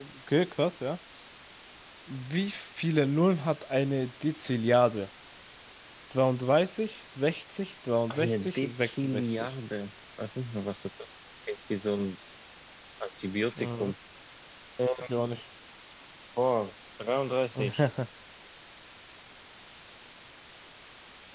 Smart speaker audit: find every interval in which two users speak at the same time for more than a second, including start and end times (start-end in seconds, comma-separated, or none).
8.1-9.5